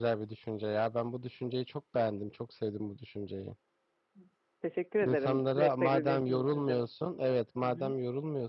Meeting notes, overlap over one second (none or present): present